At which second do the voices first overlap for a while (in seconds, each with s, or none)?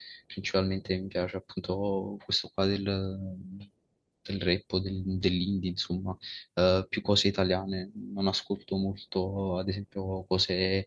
none